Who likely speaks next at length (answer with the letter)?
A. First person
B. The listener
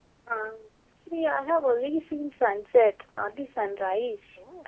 B